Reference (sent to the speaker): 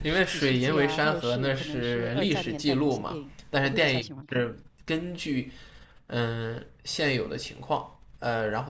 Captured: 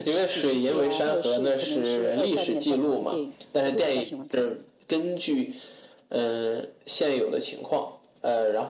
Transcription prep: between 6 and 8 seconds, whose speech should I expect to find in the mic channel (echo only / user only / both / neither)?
echo only